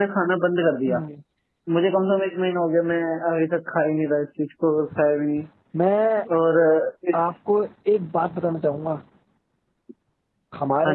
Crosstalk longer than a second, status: none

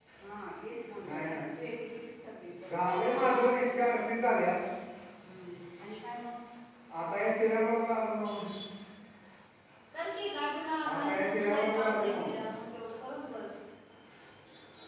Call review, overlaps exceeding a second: present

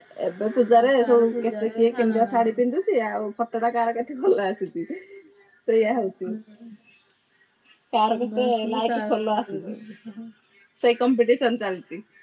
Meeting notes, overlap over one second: present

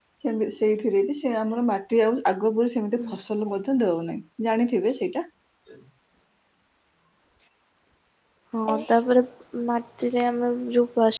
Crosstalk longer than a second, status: none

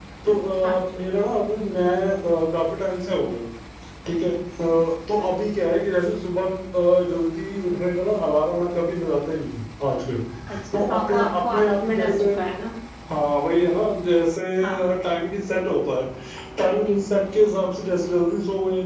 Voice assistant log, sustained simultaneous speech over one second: present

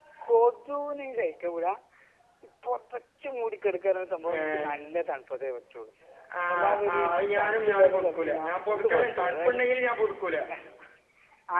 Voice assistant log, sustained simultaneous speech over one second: present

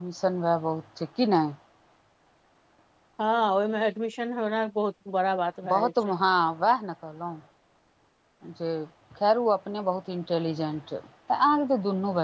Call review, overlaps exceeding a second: none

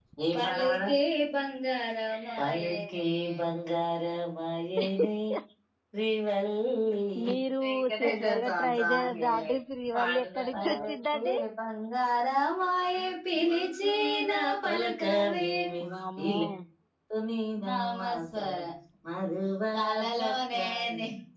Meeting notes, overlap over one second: present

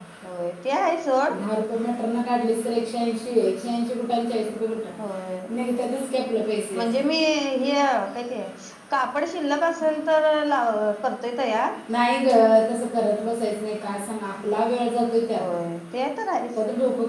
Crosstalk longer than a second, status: none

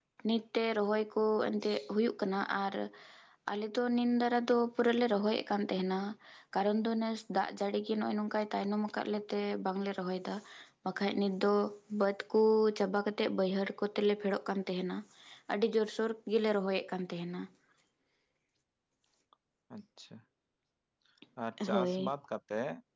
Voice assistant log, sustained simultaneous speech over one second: none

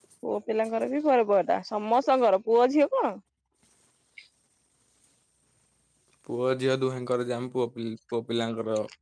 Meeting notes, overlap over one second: none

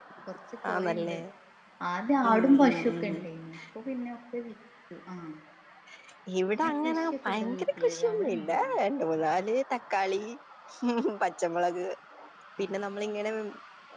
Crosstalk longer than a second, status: present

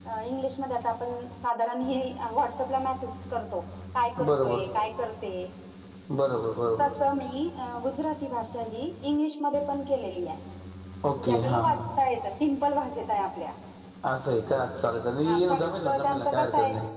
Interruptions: present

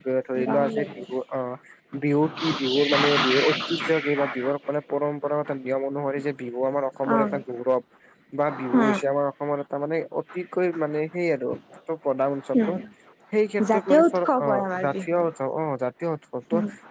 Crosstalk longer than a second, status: present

